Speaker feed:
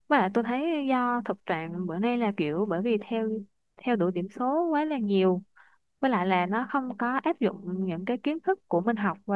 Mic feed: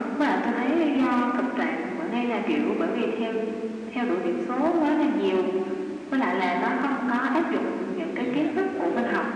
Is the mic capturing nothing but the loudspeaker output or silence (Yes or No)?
No